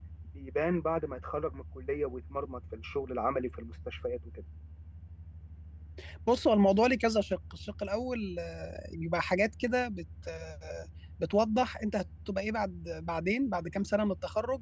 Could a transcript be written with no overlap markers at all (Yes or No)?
Yes